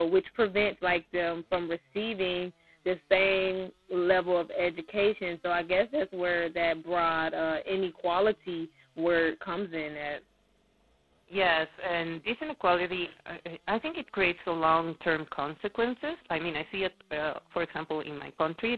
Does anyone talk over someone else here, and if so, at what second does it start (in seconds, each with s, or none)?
none